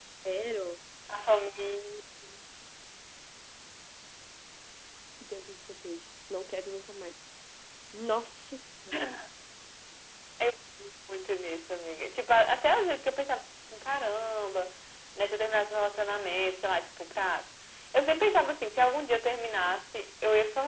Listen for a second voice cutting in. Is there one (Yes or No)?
No